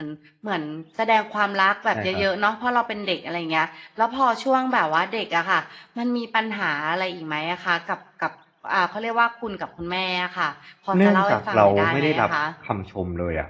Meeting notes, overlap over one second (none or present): present